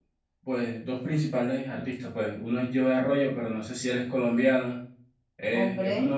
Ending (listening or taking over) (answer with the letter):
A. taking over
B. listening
B